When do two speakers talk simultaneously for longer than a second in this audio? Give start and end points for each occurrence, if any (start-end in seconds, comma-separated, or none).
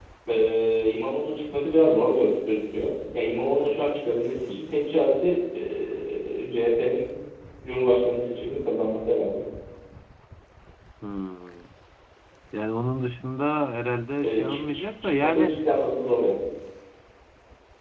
14.2-15.5